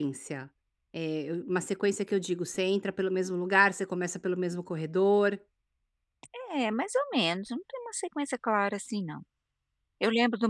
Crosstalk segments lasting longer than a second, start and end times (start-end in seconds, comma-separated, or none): none